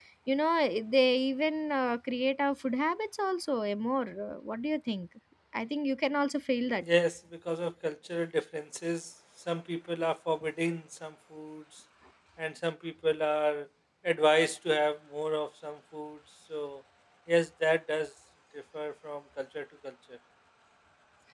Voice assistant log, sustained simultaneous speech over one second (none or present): none